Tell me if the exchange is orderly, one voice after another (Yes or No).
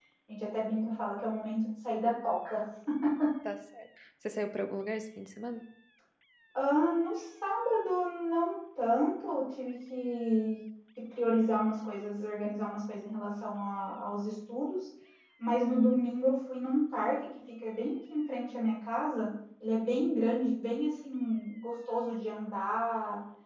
Yes